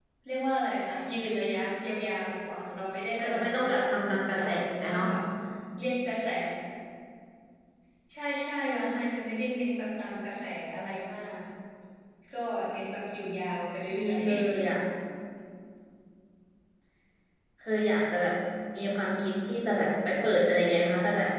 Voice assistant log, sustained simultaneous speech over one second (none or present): present